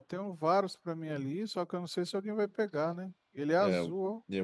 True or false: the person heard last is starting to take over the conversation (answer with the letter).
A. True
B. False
A